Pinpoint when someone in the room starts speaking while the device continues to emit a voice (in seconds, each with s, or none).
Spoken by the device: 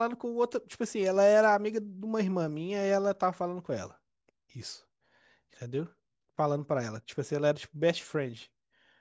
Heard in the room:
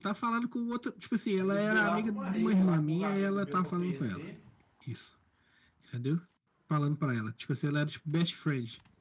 1.4 s